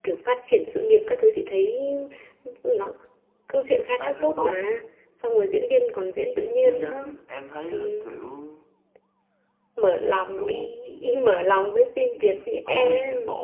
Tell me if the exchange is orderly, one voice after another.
No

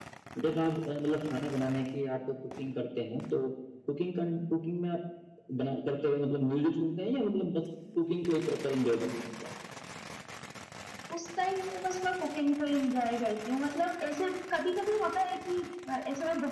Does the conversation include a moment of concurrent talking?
No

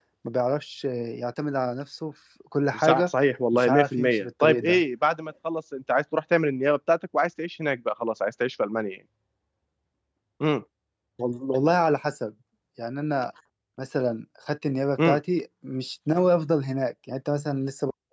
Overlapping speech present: Yes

